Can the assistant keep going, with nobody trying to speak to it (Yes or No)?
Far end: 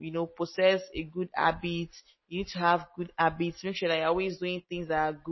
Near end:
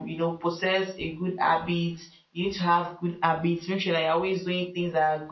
Yes